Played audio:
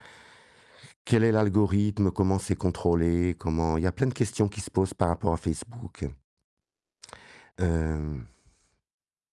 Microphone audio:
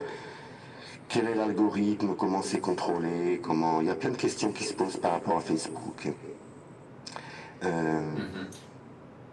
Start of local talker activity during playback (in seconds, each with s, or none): 8.1 s